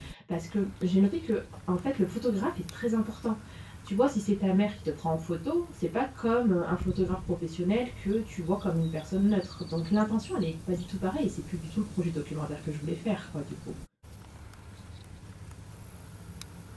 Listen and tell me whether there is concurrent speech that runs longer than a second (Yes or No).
No